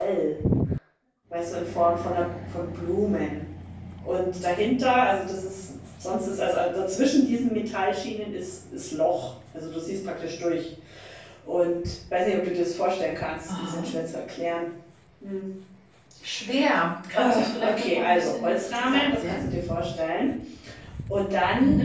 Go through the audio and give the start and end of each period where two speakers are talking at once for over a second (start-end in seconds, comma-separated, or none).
17.1-19.4